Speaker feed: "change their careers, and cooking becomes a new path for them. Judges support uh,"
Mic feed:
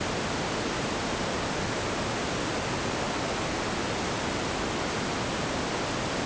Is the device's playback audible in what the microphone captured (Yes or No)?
No